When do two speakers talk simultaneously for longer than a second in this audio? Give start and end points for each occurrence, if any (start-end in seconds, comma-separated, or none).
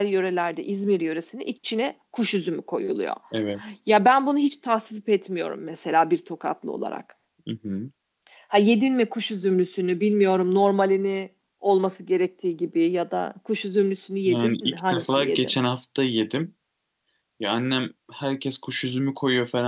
14.3-15.6